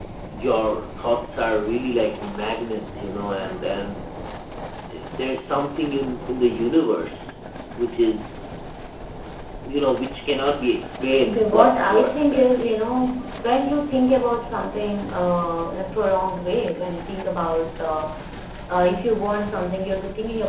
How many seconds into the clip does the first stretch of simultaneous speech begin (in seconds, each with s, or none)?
11.2 s